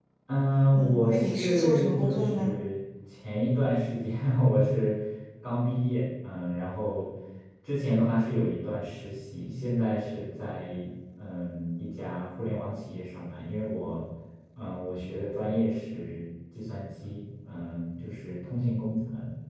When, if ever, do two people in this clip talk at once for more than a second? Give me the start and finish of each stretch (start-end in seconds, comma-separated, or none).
0.7-2.6